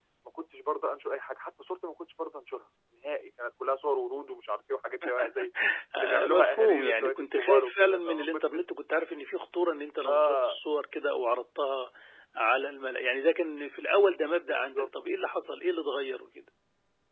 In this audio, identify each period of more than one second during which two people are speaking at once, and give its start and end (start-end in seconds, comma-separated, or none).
6.0-8.6